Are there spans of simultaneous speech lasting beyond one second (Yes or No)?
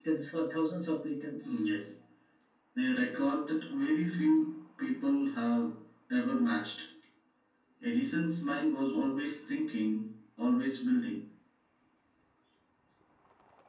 No